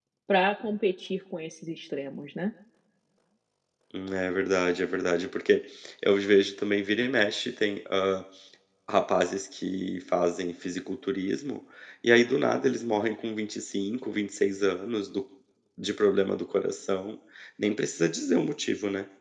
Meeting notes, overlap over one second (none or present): none